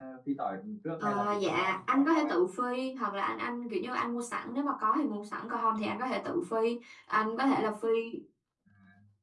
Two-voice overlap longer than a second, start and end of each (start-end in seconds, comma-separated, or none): 1.0-2.3